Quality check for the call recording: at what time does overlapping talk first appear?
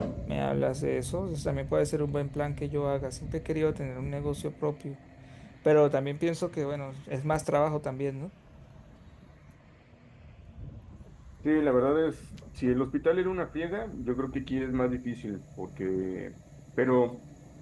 none

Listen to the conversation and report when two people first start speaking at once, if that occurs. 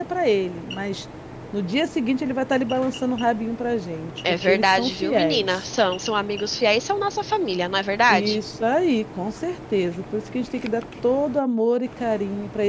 4 s

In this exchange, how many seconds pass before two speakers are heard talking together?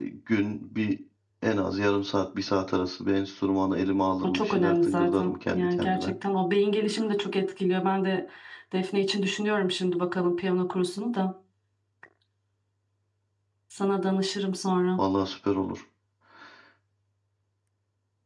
4 s

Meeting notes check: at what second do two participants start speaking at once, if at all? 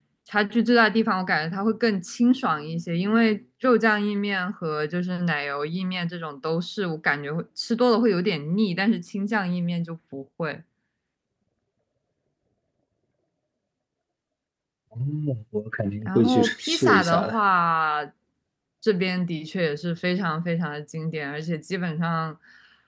16 s

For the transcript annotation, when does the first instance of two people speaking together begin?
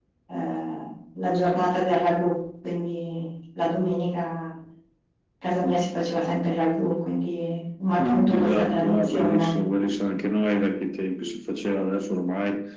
8 s

